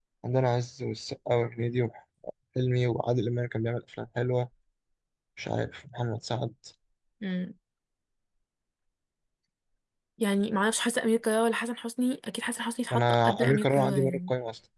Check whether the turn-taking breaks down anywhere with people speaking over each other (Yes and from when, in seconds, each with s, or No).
Yes, from 12.9 s